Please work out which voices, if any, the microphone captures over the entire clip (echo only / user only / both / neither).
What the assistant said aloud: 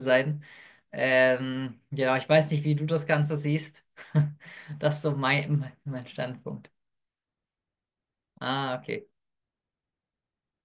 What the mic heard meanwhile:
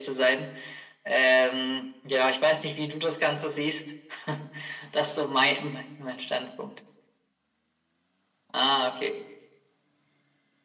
echo only